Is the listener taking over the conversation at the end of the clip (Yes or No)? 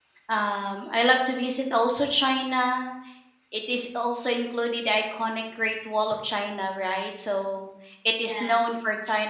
No